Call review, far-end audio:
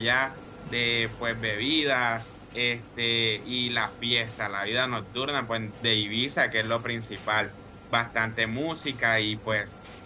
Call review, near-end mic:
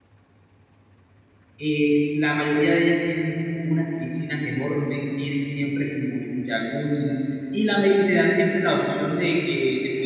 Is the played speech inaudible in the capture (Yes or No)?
Yes